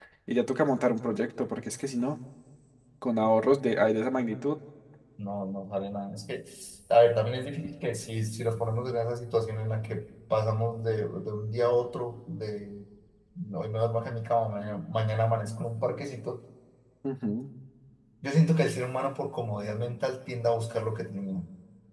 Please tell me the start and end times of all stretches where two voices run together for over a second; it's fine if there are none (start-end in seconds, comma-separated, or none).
none